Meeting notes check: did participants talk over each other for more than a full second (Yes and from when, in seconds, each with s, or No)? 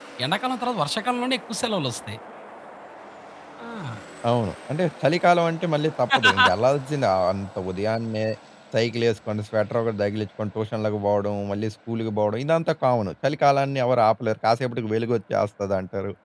No